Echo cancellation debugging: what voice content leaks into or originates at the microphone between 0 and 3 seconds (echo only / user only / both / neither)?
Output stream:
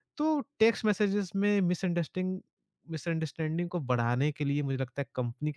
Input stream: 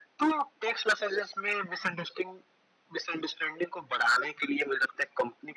echo only